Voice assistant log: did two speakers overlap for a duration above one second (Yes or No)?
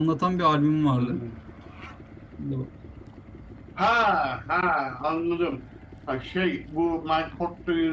No